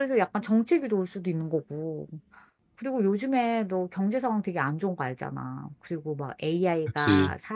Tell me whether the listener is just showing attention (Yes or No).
Yes